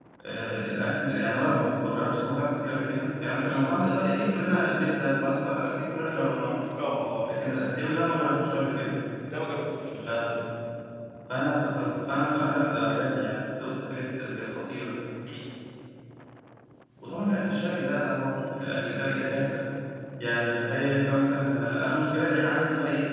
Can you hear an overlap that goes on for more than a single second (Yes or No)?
No